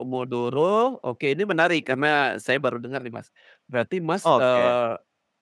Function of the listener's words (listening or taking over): listening